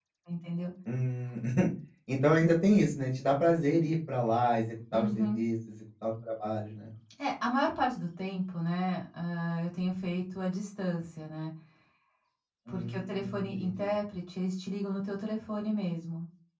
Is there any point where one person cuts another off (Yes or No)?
Yes